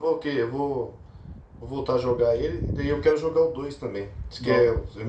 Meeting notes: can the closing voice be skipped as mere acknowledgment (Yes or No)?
Yes